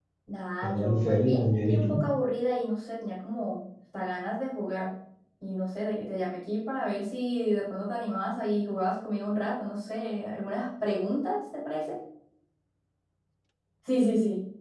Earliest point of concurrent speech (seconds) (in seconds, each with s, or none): 0.6 s